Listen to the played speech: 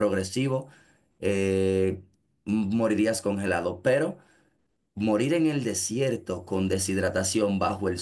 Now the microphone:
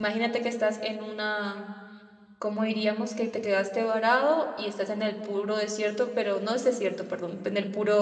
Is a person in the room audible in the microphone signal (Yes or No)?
Yes